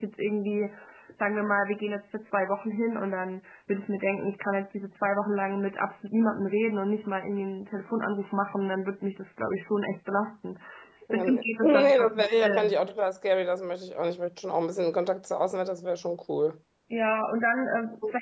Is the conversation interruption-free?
No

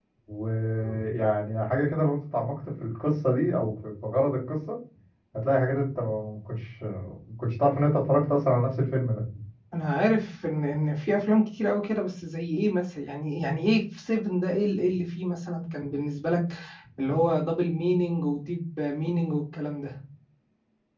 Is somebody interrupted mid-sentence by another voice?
No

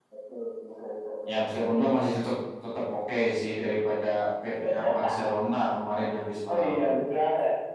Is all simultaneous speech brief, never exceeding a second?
Yes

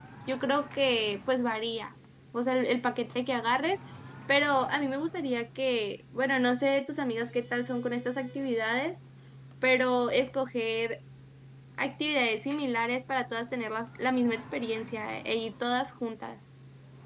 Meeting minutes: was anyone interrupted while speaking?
No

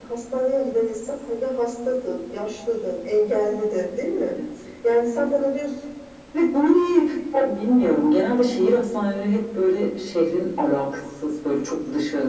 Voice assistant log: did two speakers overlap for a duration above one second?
No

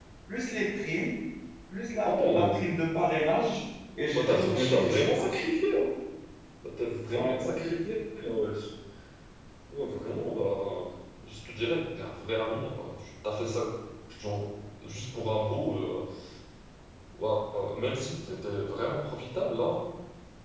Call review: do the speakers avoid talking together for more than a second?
No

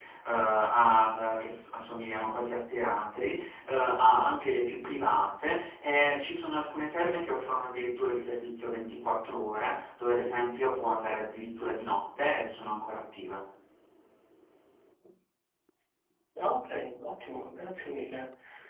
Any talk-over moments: No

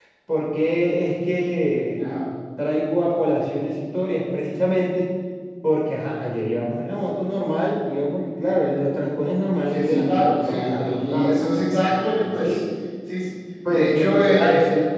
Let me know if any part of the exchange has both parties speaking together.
Yes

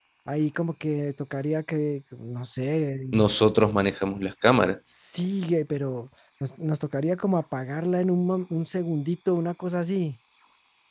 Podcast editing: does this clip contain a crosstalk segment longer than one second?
No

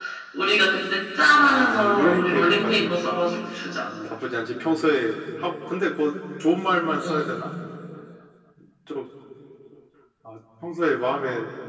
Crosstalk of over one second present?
Yes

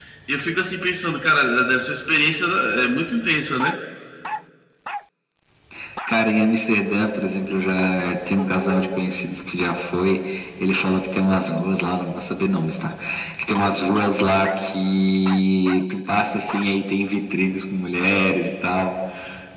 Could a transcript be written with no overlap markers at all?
Yes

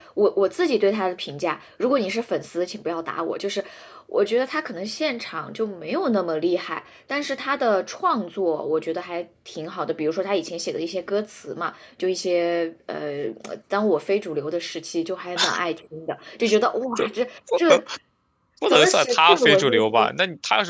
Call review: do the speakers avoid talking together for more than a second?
No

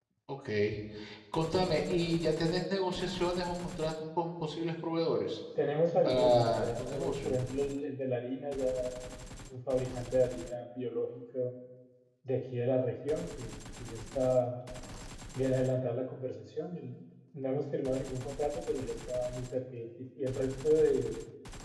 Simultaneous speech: Yes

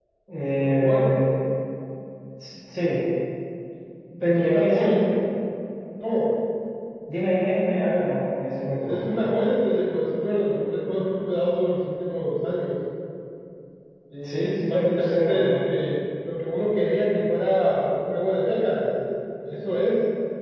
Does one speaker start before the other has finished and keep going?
Yes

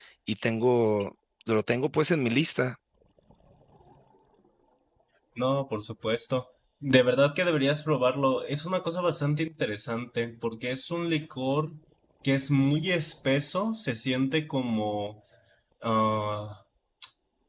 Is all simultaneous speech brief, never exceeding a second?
Yes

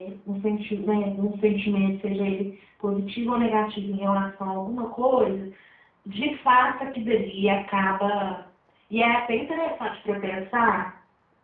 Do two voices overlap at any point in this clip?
No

